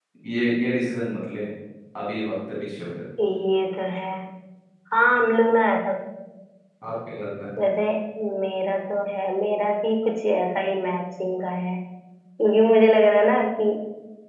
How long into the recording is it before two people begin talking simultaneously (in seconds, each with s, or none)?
none